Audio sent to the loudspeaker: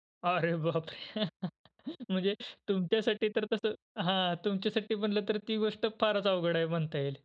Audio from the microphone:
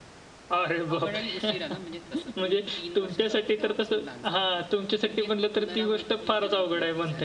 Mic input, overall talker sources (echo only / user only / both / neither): both